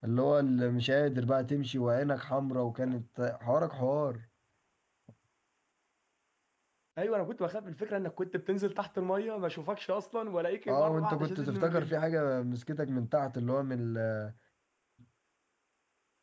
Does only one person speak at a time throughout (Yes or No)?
No